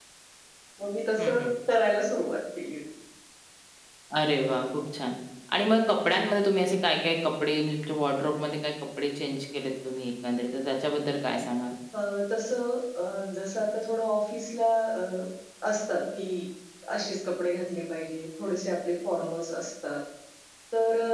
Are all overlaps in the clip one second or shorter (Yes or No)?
Yes